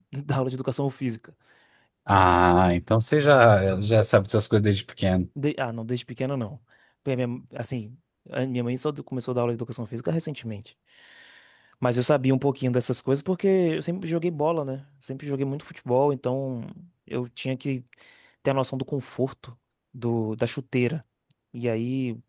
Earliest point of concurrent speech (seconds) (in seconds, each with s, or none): none